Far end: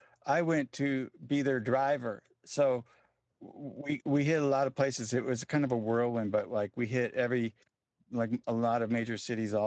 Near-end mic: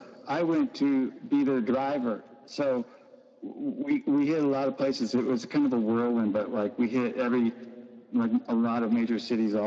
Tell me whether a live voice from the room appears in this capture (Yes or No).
No